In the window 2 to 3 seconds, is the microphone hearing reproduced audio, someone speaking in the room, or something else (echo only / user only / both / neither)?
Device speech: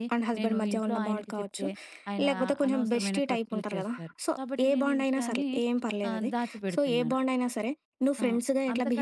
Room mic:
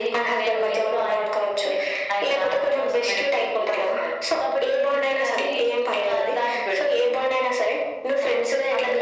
echo only